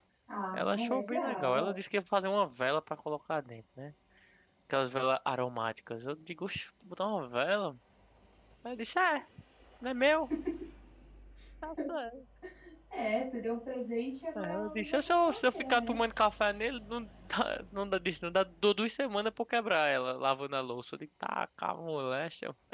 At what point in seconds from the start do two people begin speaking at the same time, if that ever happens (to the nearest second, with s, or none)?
1 s